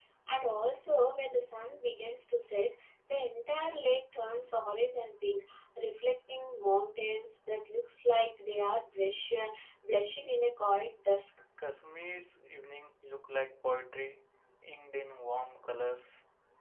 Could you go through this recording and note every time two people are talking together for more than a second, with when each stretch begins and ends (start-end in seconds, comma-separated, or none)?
none